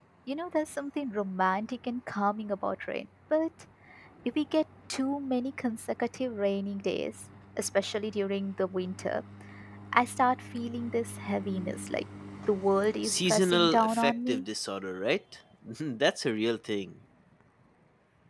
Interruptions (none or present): present